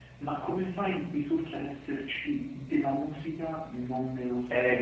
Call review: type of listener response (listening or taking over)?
taking over